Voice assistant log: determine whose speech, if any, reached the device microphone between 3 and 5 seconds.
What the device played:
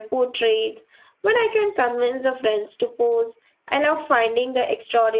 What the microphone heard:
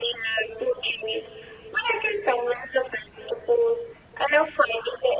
echo only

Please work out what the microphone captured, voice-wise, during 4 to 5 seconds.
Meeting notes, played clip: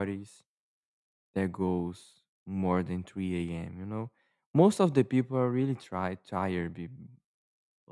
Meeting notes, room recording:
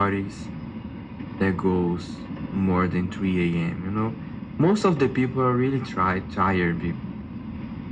echo only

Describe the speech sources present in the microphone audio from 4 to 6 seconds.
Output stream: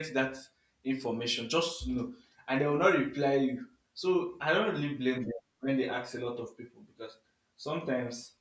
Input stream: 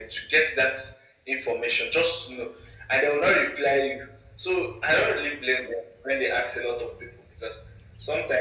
echo only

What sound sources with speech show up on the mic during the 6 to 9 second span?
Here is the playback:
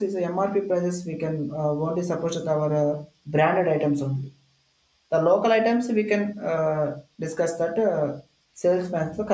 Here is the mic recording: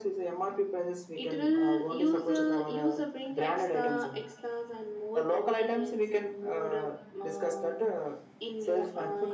both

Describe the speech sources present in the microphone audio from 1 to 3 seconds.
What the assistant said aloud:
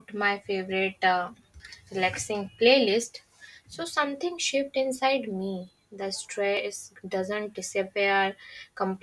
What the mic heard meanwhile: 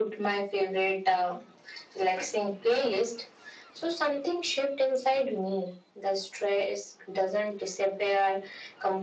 echo only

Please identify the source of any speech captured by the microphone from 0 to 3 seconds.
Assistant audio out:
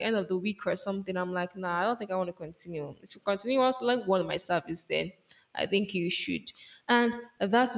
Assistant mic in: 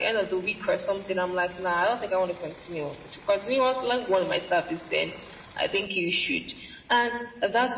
echo only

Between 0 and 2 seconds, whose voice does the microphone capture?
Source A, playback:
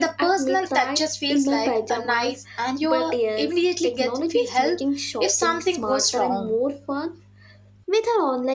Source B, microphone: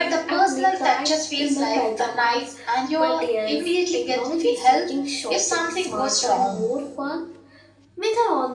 echo only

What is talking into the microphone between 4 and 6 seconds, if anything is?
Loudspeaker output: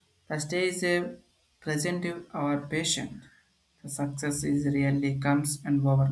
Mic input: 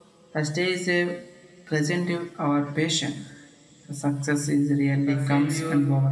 both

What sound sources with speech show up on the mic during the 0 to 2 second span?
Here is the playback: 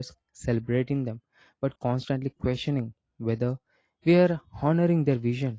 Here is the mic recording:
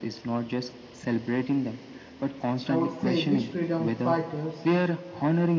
echo only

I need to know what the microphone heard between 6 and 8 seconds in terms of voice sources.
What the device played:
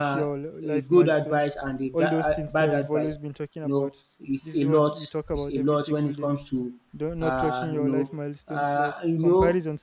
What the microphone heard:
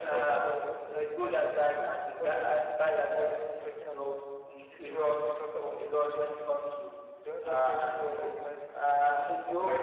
echo only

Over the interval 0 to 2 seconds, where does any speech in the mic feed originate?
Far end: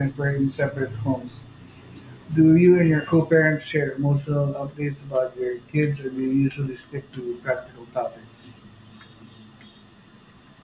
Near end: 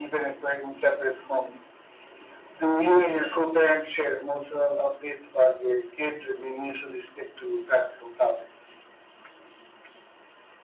echo only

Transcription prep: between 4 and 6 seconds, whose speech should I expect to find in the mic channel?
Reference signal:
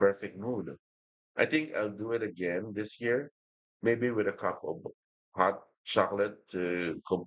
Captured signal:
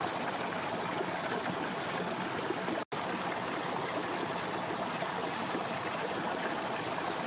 neither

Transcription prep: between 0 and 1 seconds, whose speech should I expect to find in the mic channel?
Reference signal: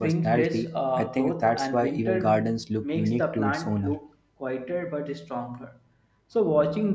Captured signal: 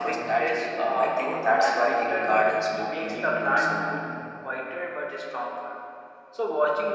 both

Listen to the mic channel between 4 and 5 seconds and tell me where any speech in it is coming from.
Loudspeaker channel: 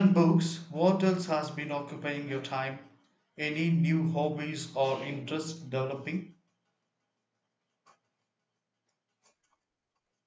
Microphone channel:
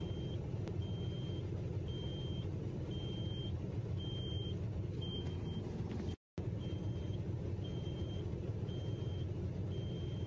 neither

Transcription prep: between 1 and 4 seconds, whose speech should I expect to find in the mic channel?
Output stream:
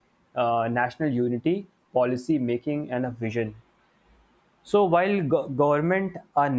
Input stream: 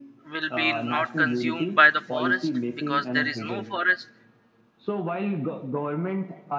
both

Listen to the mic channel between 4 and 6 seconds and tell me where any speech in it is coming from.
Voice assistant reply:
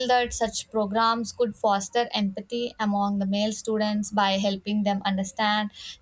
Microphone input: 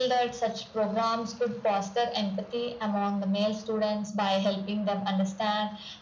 echo only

